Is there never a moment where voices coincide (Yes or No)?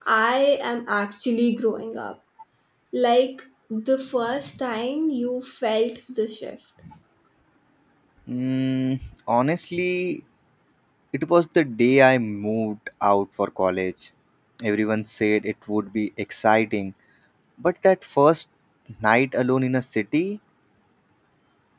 Yes